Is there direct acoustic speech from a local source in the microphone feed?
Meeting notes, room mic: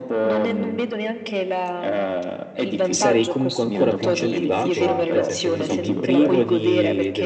Yes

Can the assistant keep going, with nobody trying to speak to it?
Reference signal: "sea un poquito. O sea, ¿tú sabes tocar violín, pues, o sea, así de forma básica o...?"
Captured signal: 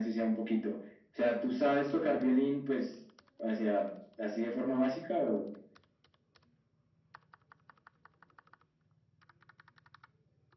Yes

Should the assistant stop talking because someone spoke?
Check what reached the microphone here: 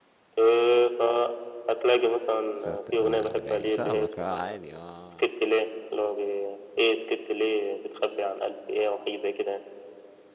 Yes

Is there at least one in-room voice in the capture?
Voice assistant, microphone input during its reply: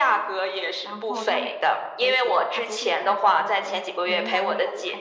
Yes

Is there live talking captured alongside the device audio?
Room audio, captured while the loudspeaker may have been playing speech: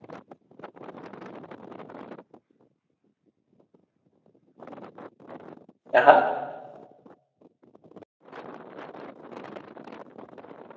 Yes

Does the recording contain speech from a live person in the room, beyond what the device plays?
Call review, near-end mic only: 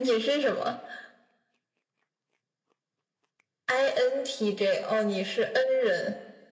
No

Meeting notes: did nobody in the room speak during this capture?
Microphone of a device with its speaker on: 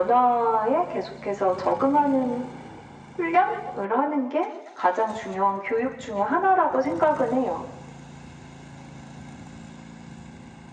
Yes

